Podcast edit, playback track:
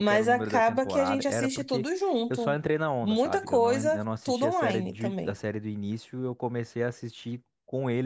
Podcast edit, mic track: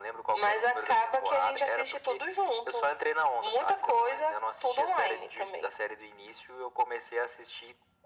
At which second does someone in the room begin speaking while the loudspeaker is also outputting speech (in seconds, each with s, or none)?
none